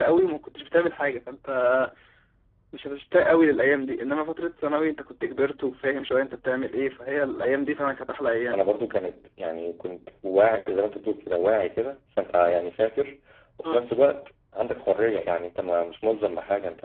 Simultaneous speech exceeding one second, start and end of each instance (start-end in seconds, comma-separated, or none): none